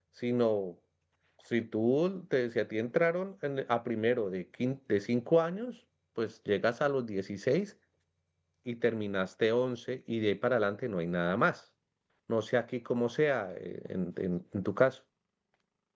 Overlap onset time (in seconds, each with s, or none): none